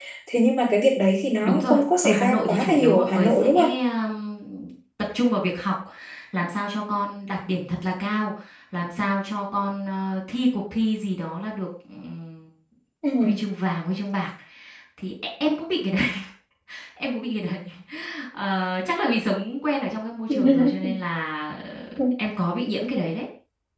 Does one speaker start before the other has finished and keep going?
Yes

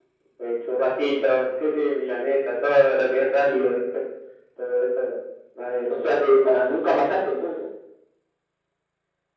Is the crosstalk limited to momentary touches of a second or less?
Yes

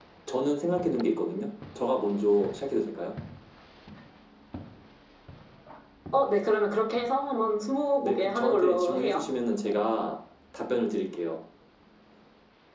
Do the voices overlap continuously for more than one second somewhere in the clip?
Yes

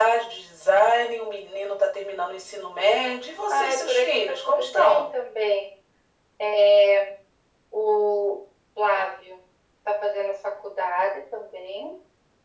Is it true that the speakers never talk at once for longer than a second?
No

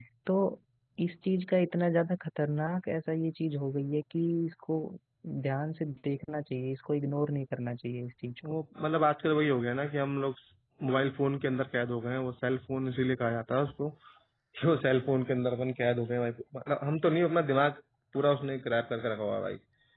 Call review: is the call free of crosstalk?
Yes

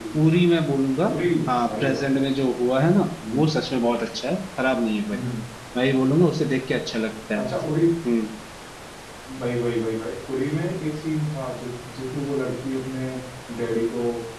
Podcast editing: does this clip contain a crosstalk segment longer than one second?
No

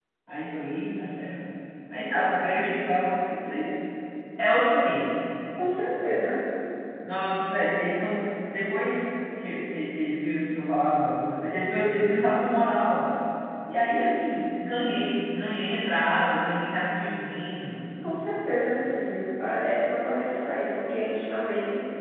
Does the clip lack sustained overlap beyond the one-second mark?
Yes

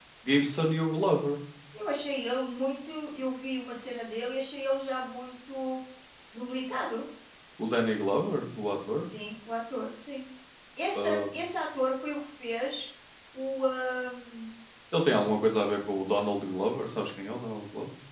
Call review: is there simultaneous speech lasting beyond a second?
No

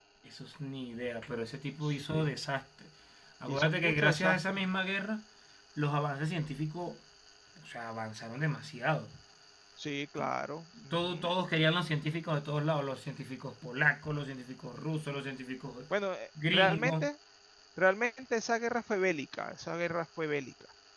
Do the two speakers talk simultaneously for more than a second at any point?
Yes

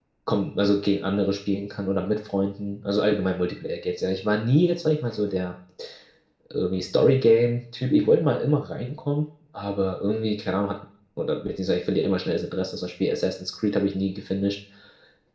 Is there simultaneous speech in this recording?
No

